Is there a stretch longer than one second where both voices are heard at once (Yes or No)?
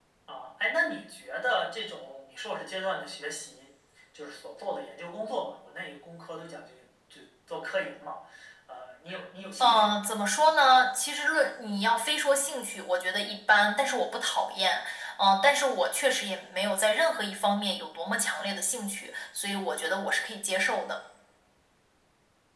No